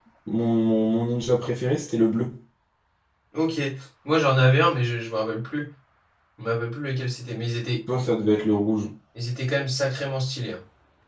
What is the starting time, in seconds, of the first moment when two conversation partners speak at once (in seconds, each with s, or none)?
none